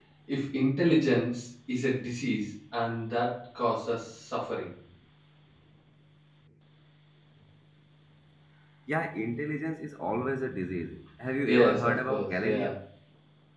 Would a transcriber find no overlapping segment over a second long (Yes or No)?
No